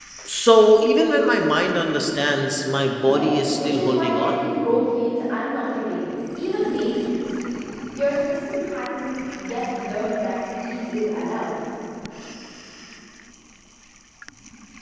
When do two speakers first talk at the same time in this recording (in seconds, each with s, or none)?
3.0 s